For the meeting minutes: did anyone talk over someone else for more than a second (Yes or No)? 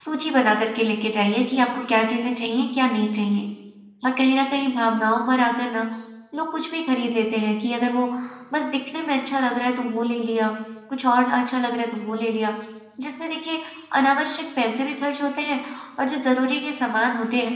No